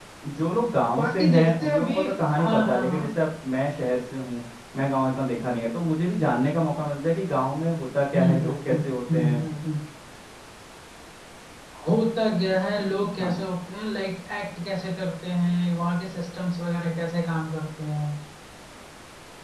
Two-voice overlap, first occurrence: 0.9 s

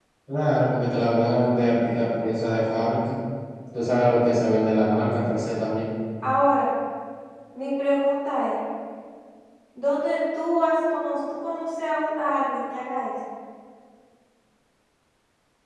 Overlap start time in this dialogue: none

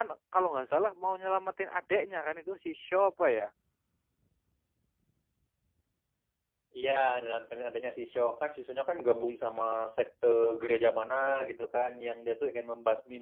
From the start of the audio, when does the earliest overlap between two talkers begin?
none

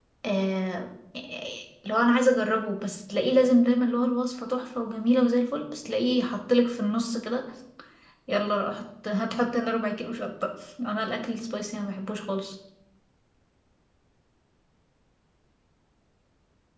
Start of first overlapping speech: none

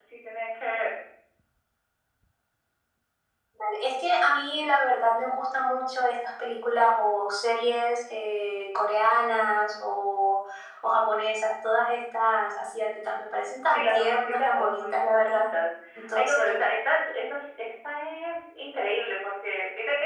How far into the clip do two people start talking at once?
13.7 s

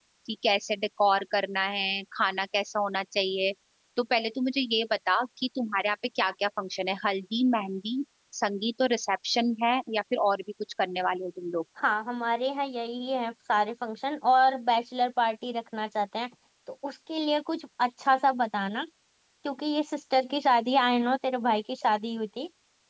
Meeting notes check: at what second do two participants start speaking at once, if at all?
none

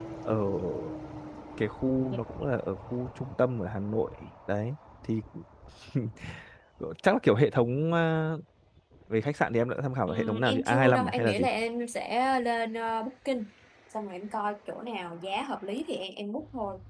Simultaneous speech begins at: 10.1 s

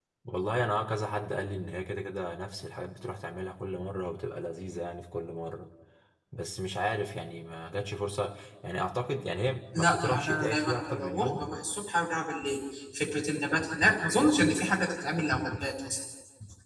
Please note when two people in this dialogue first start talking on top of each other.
9.7 s

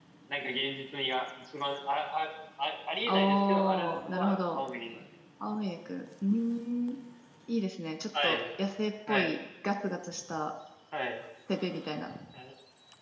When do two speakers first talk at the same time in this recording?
3.1 s

